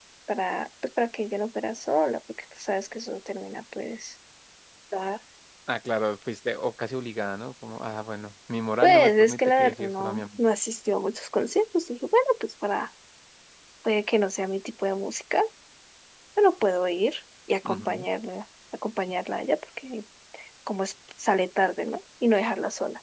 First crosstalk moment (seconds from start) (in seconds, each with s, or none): 8.8 s